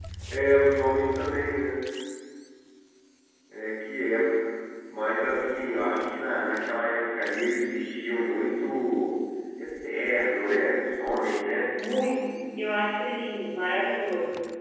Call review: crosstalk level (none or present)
none